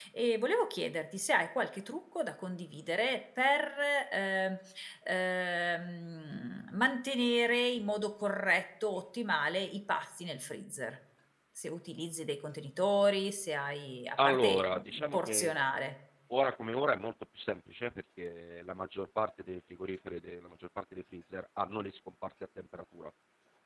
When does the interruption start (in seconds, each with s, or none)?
14.2 s